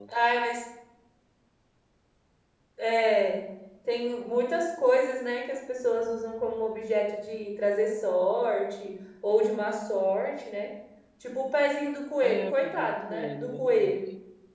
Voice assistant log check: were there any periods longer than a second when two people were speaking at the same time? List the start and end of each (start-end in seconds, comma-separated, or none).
12.2-14.0